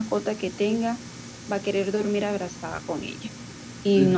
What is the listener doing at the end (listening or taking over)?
listening